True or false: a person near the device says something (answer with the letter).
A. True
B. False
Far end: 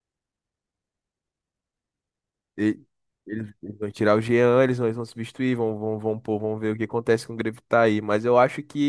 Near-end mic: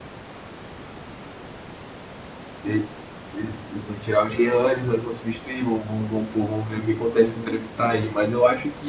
B